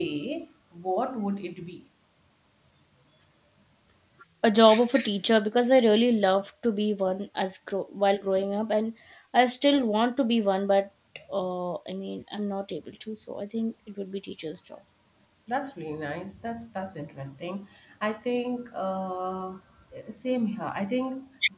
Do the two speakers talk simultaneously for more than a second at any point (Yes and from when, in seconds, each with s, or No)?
No